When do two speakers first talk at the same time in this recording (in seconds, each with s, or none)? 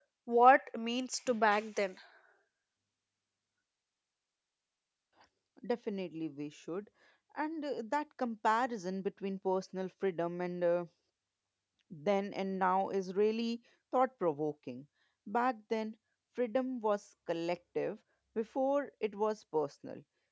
none